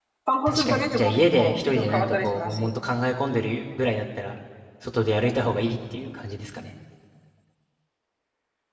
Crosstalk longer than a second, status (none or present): present